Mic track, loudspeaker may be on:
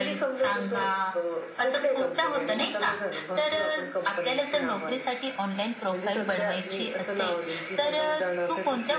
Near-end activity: none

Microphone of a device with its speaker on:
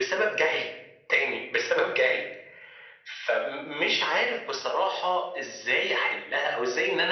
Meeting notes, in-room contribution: none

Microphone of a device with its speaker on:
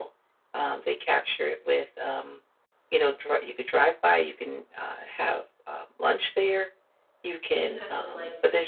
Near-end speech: present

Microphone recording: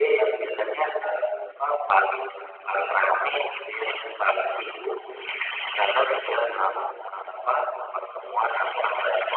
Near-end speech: none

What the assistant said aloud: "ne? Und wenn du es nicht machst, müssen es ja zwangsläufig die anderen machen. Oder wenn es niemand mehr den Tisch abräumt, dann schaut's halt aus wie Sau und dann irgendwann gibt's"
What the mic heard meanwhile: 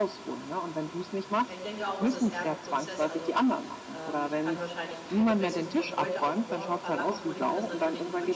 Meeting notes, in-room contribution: present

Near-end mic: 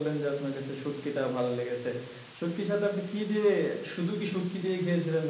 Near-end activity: none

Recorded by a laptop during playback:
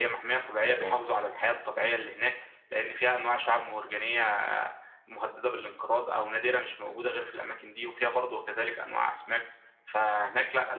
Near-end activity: present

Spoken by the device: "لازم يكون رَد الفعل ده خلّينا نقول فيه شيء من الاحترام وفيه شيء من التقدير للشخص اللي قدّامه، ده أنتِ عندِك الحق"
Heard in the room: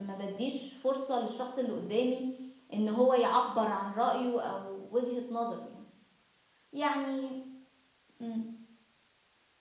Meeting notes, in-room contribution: present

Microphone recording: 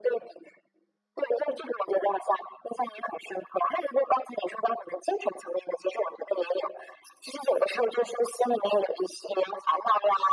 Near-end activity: none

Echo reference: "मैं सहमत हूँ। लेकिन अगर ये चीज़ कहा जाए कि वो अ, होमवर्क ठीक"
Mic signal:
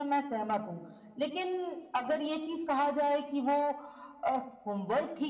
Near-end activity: none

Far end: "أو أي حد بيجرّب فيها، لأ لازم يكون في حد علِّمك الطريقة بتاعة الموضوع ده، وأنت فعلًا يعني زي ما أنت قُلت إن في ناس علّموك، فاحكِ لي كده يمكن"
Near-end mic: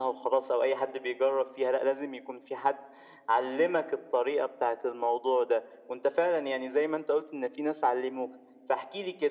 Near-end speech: none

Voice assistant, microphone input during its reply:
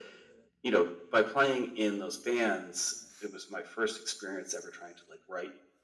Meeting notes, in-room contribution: none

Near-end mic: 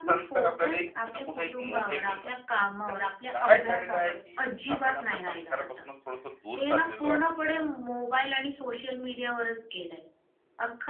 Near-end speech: present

